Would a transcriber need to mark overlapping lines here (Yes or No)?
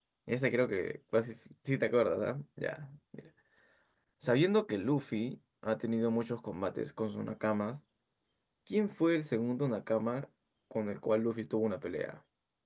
No